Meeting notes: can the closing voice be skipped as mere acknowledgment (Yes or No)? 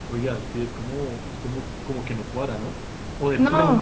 Yes